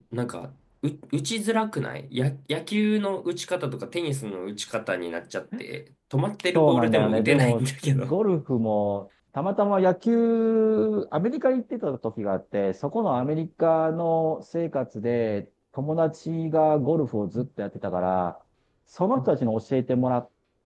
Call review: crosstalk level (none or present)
present